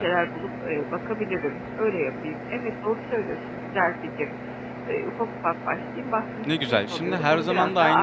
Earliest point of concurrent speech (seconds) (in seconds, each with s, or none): 6.4 s